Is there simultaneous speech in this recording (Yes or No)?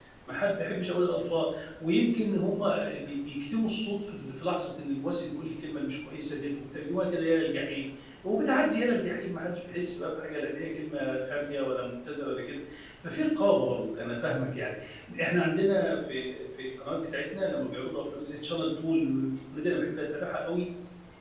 No